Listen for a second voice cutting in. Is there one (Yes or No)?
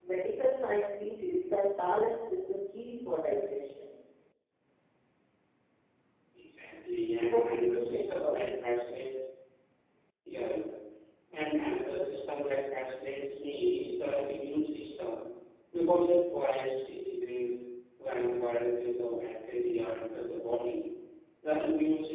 Yes